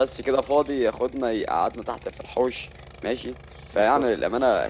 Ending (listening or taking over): listening